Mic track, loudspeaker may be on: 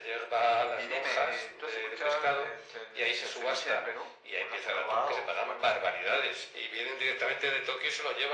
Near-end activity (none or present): none